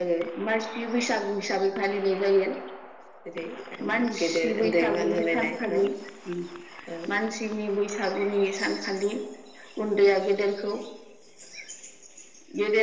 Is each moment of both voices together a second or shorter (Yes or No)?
No